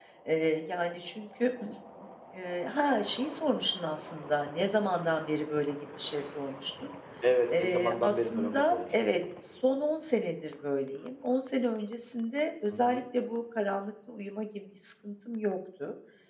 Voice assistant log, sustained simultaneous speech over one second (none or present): present